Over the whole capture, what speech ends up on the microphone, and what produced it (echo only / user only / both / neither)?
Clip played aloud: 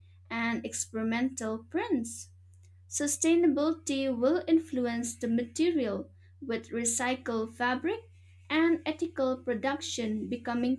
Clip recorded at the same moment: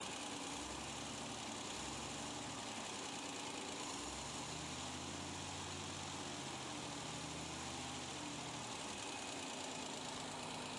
neither